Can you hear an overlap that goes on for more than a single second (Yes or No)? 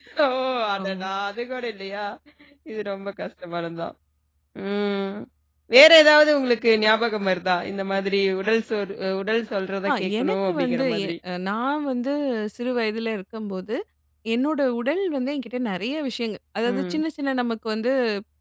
Yes